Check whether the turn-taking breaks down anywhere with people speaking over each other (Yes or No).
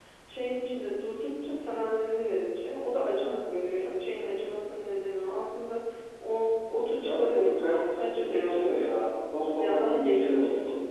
Yes